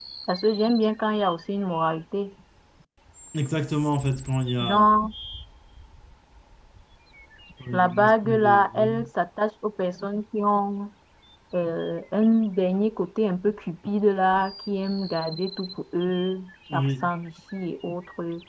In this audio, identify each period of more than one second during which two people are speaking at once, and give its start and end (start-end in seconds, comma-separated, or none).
7.7-9.1